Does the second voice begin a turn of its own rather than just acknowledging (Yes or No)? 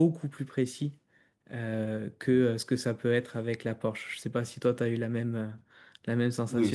Yes